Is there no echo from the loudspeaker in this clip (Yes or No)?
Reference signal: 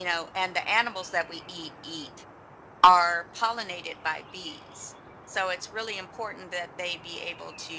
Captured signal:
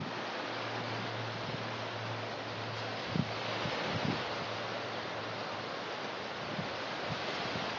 Yes